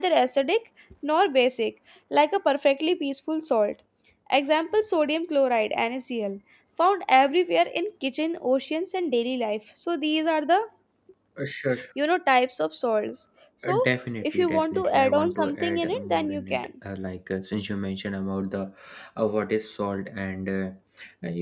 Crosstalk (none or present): present